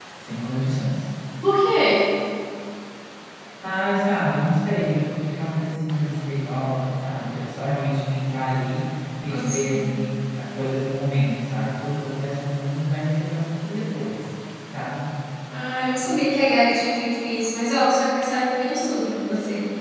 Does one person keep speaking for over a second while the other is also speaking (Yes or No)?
No